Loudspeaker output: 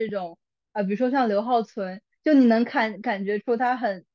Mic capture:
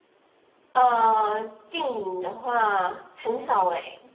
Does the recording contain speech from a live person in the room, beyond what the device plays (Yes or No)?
Yes